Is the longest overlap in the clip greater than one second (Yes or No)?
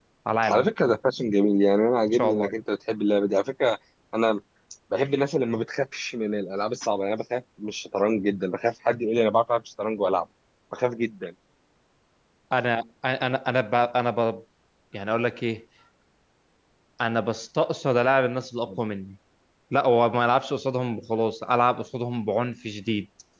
No